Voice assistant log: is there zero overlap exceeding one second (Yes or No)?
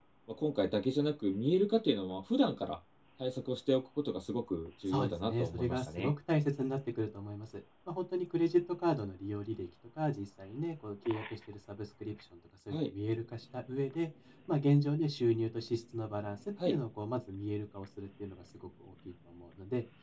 No